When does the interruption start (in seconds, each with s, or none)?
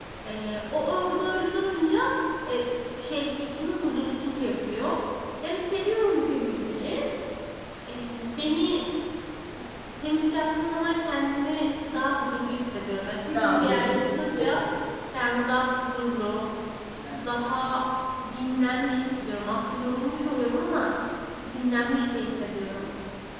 13.3 s